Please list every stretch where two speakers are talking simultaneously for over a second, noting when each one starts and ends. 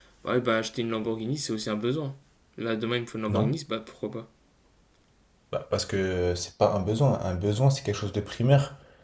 none

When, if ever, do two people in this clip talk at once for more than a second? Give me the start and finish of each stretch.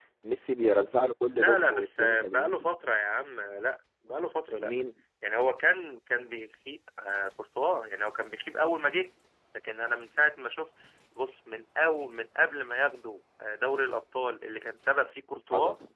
1.3-2.6

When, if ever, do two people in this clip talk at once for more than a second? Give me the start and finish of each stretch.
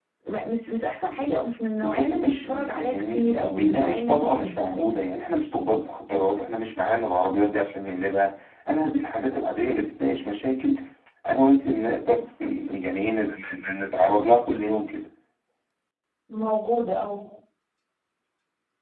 1.8-4.9

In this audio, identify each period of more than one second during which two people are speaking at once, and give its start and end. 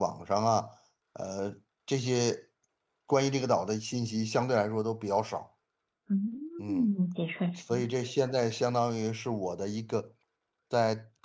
none

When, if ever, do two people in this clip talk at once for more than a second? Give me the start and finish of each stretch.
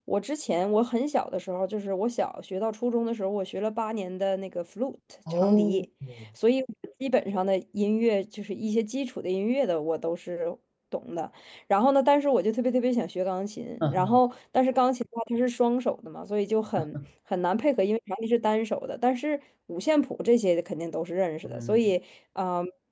none

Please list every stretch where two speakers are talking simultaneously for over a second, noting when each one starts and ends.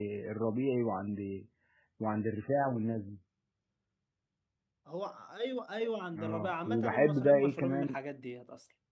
6.2-8.0

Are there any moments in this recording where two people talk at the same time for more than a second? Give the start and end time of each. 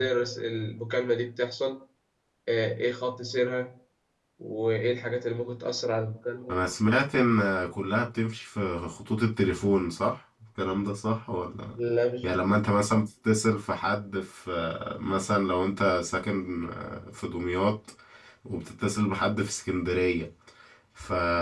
none

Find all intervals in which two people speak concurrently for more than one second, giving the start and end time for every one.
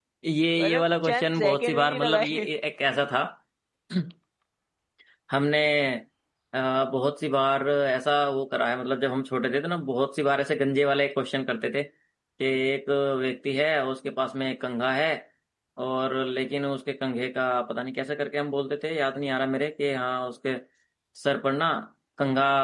0.6-2.4

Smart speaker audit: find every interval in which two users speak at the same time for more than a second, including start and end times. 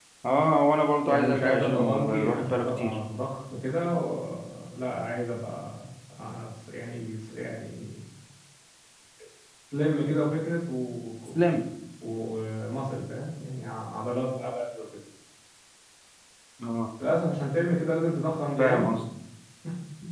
1.1-3.0

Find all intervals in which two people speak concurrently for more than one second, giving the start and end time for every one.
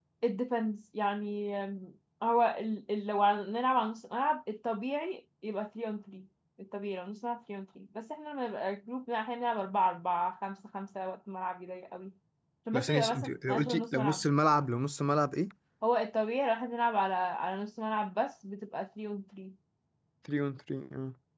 12.7-14.2

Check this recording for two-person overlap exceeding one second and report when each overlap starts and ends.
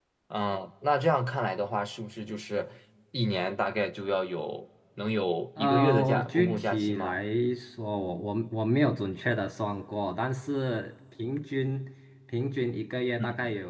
5.6-7.2

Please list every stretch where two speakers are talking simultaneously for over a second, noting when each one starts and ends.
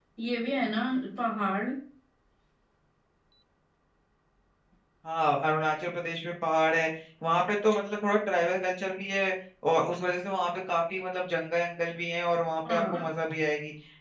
none

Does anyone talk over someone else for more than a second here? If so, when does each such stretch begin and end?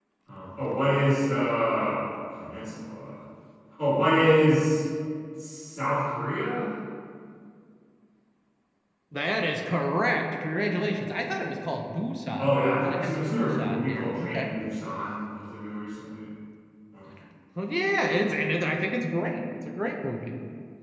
12.4-14.5

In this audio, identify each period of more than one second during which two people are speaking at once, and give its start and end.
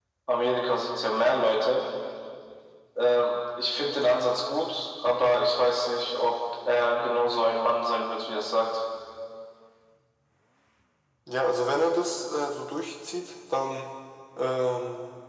none

